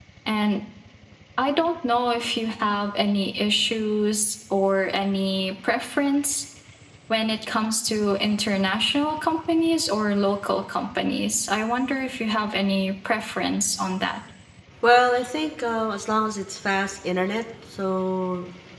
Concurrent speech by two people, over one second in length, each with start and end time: none

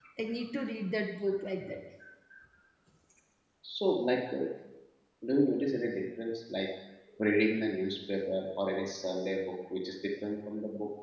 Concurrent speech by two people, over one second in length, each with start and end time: none

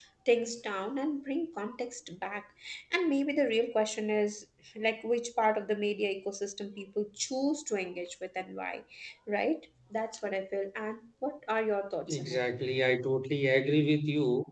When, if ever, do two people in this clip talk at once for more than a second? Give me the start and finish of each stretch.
none

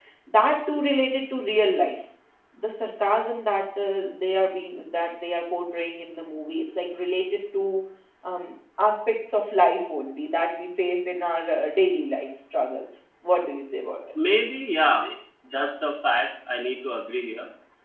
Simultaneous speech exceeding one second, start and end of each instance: none

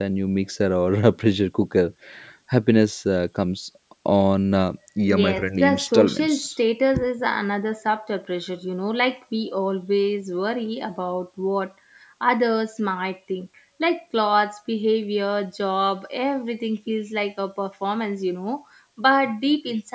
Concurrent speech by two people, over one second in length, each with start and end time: 5.1-6.4

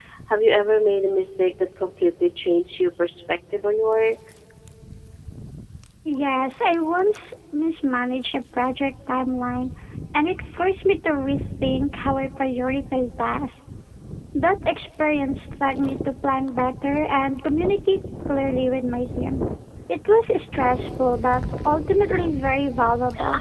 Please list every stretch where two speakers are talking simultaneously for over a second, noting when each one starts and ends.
none

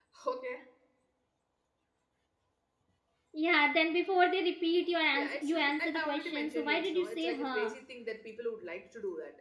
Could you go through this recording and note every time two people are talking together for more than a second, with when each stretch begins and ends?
5.1-7.7

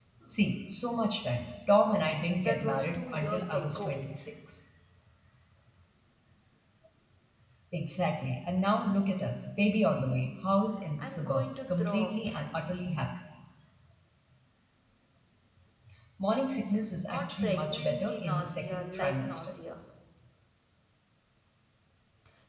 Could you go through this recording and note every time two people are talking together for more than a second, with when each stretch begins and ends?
2.4-3.9, 11.0-12.3, 17.1-19.5

